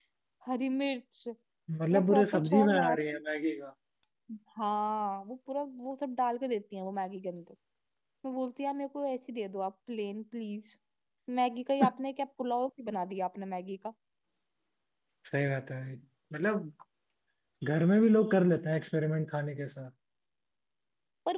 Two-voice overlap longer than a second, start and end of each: 1.9-3.2

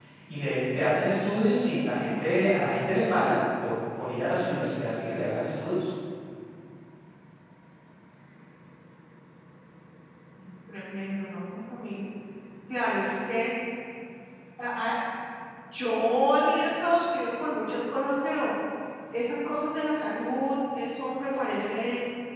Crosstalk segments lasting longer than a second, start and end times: 1.7-2.9

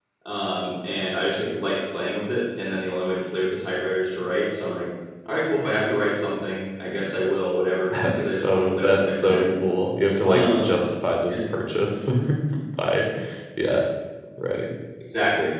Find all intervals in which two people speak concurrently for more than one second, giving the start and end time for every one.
7.9-9.5

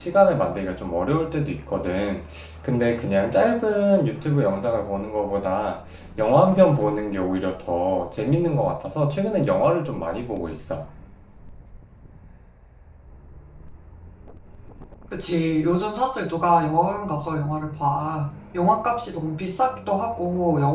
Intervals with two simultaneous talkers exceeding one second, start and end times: none

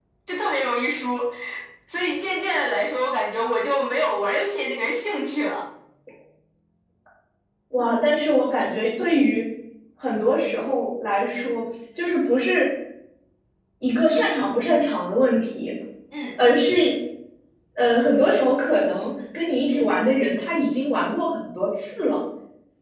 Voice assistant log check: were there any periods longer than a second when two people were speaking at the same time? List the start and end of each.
none

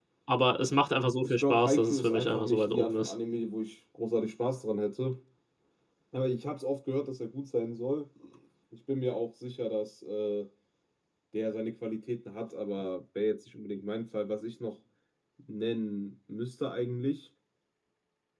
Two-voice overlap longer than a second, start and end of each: 1.2-3.1

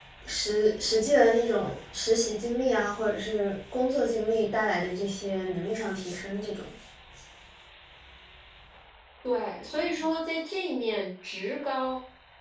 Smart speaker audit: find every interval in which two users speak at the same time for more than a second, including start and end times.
none

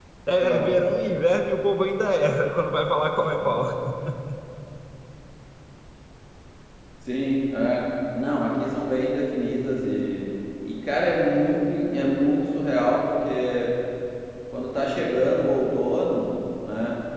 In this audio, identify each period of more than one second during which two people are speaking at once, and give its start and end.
none

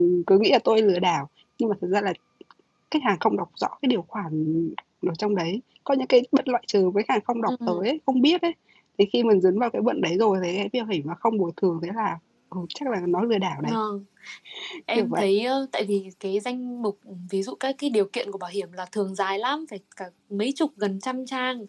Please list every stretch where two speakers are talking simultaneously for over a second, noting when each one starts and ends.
none

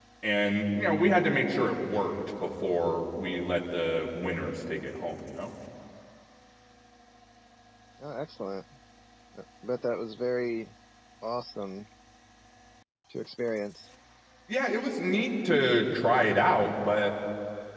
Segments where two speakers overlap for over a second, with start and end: none

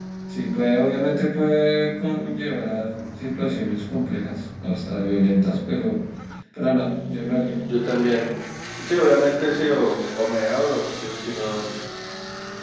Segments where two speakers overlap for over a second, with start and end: none

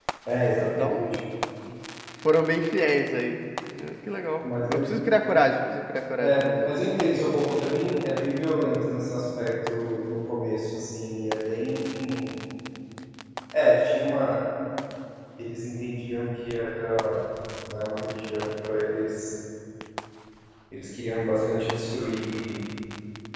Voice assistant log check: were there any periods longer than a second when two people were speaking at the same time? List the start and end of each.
none

